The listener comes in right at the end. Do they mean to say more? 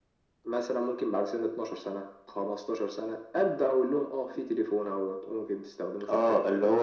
Yes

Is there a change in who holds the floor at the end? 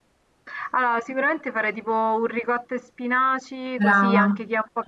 No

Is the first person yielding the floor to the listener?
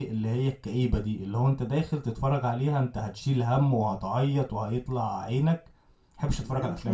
Yes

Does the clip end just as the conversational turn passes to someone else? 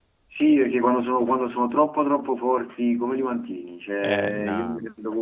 No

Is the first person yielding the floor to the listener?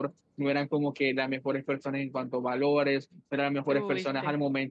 No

